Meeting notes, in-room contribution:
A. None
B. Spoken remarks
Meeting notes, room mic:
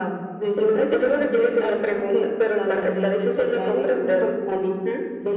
A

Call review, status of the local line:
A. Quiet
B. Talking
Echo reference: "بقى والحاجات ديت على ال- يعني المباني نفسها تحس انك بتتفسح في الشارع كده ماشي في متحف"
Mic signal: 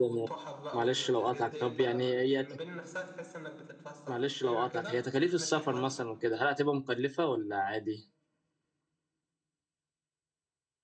B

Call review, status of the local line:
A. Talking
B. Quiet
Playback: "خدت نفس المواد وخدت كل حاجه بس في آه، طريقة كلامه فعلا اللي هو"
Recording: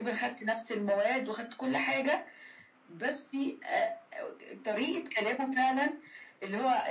B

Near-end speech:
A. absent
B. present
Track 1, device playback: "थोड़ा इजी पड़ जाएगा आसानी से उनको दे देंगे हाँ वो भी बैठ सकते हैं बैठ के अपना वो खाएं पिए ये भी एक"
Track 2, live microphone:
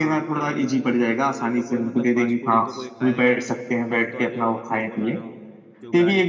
B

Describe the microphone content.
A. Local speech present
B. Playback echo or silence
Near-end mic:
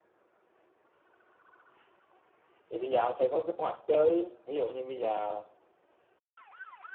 A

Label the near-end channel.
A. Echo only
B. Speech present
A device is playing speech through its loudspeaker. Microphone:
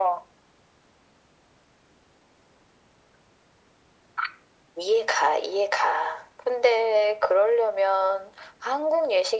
A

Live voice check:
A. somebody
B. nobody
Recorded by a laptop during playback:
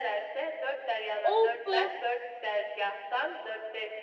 A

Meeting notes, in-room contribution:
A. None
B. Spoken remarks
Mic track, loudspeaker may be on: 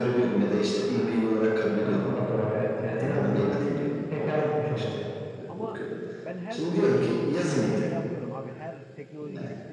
B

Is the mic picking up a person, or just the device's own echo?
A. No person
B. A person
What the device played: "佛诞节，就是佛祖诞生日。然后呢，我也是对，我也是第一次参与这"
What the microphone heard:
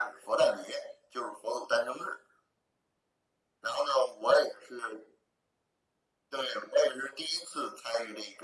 A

